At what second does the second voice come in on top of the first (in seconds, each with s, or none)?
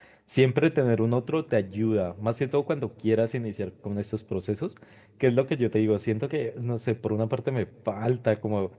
none